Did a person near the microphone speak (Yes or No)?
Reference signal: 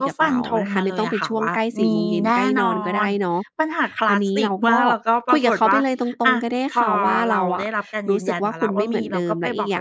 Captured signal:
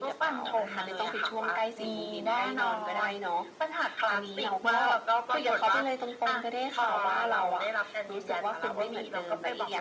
No